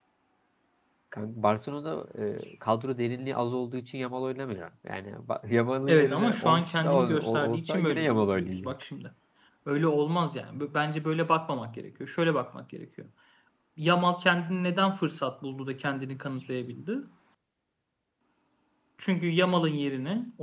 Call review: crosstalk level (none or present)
present